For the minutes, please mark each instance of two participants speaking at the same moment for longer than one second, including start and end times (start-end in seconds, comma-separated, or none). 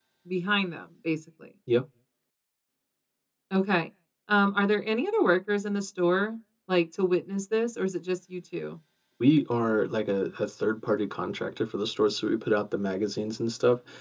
none